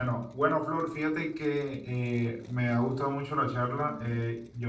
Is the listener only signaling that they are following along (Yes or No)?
Yes